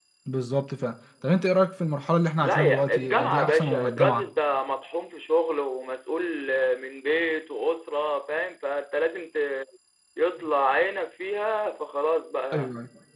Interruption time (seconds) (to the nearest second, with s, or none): 2 s